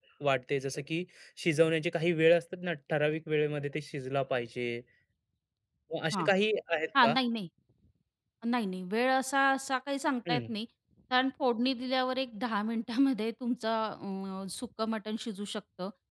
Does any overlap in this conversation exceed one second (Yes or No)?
No